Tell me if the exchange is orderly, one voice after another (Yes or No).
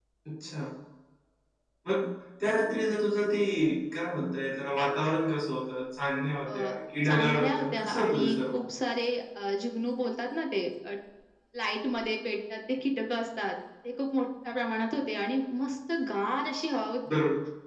No